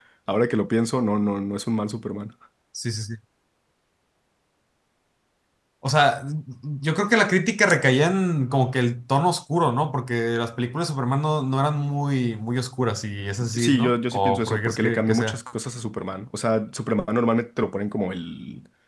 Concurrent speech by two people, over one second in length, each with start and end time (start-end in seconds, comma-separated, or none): 13.6-15.4